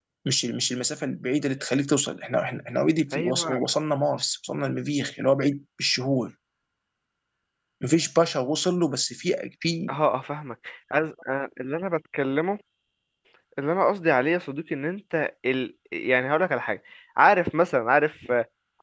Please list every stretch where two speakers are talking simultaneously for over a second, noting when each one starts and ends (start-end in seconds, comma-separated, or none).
none